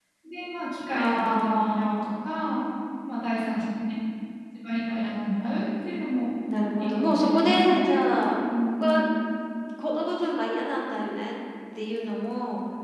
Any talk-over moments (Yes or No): Yes